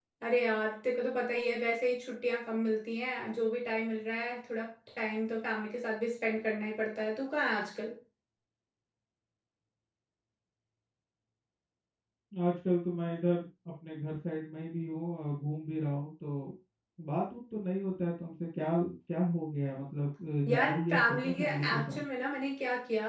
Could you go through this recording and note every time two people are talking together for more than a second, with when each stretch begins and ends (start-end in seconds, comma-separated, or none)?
20.5-22.0